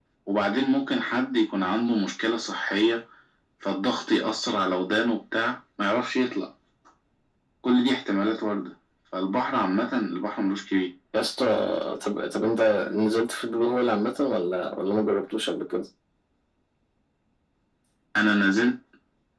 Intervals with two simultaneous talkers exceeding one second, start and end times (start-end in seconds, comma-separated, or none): none